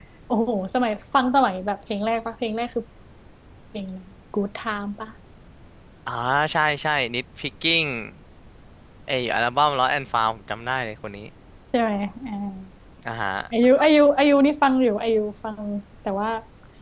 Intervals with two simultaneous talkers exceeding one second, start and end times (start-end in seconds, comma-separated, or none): none